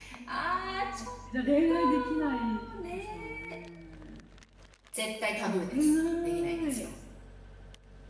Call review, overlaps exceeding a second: present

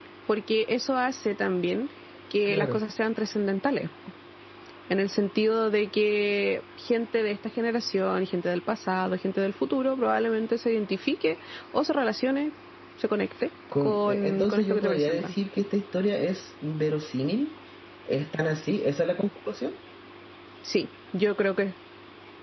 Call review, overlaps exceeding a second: present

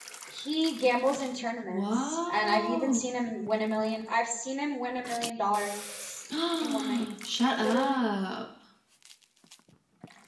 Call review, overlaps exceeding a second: present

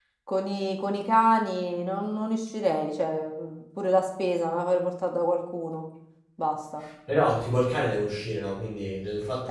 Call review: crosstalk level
none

